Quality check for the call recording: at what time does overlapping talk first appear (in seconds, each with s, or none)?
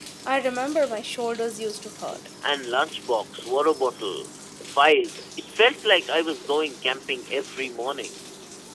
none